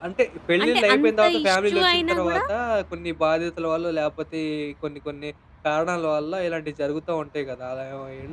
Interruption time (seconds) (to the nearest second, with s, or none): 1 s